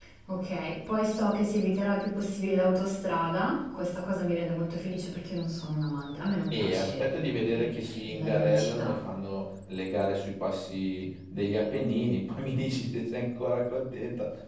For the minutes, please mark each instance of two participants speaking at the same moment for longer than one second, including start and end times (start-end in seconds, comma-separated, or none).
6.5-9.0